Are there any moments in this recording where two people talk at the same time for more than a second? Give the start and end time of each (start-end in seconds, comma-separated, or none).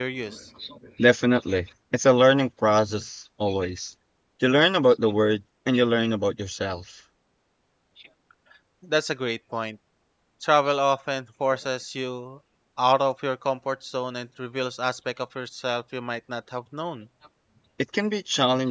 none